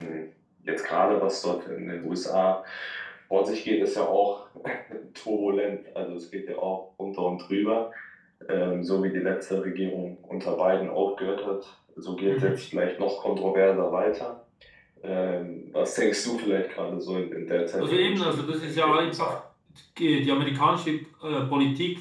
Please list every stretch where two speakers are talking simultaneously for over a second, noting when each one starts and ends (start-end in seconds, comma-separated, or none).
17.8-19.4